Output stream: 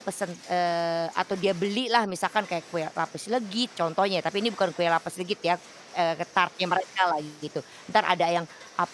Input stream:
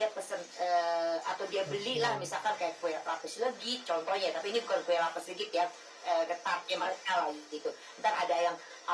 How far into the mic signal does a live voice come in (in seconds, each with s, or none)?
1.6 s